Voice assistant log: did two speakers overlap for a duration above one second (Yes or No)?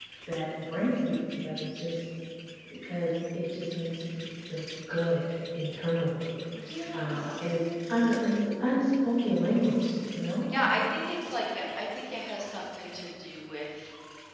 No